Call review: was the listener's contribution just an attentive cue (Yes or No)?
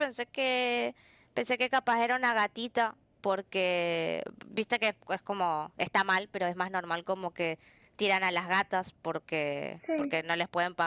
Yes